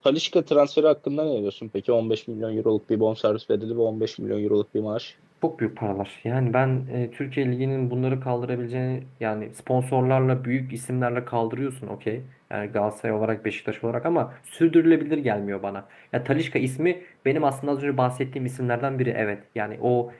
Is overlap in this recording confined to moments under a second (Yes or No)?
Yes